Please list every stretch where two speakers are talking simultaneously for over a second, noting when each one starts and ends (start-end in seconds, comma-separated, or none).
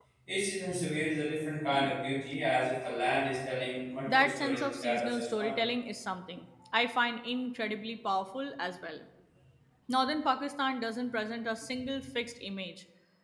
4.1-5.5